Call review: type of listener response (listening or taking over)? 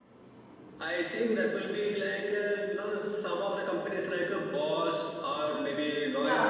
taking over